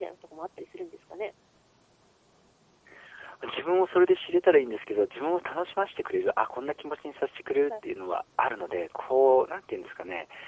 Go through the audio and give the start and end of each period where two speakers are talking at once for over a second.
none

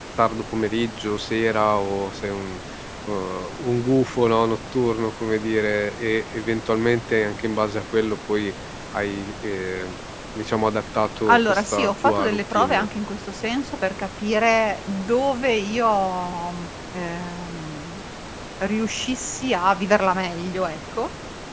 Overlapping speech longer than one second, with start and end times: 11.3-12.9

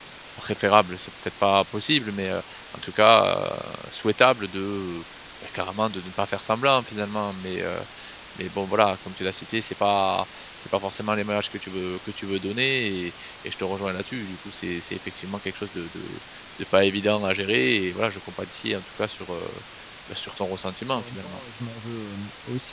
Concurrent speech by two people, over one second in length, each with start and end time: none

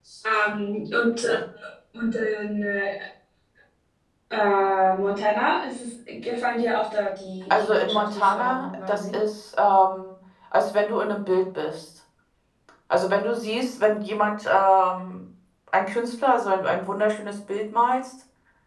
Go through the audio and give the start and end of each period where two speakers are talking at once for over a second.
7.6-9.2

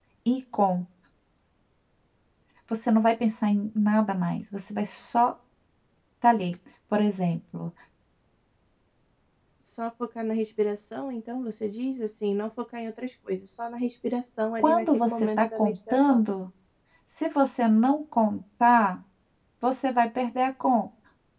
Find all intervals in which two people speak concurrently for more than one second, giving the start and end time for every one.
14.6-16.2

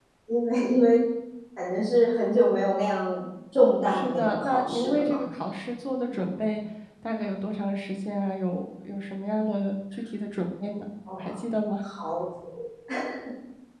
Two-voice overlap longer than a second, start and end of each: 3.9-5.2

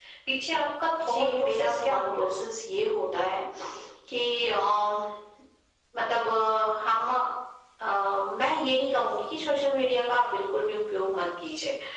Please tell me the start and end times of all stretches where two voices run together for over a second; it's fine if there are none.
1.0-2.4

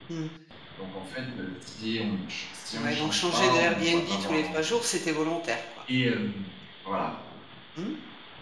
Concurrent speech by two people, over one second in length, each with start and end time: 2.7-4.8

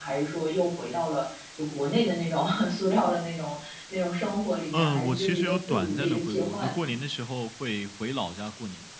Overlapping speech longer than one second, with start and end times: 4.7-6.9

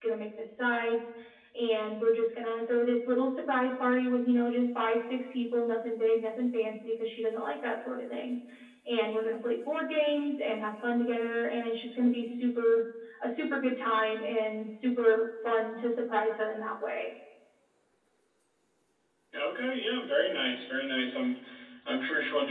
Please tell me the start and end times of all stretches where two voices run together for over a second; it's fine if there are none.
none

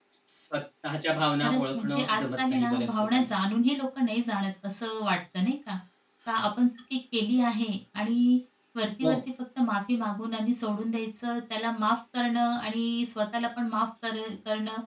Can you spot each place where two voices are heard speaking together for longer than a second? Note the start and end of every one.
1.4-3.3

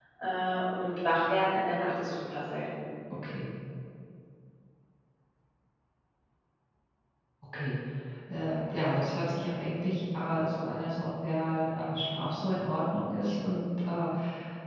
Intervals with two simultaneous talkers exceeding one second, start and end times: none

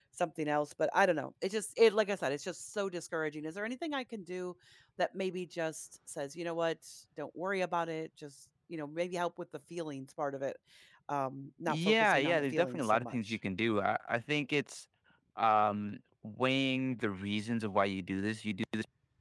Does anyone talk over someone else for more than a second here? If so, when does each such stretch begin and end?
11.7-13.4

